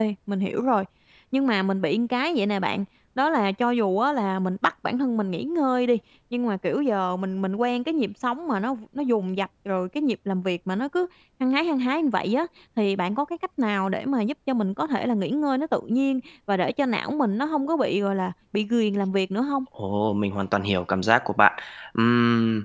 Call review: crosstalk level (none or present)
none